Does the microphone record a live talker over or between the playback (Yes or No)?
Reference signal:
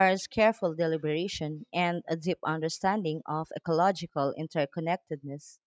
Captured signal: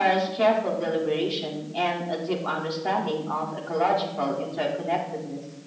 No